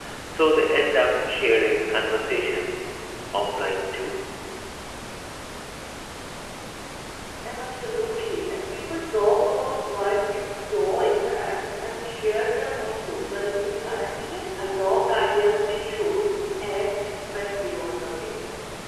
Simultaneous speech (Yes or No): No